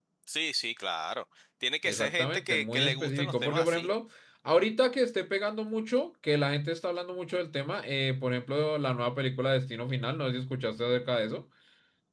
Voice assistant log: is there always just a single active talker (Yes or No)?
No